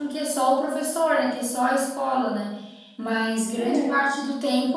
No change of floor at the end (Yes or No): Yes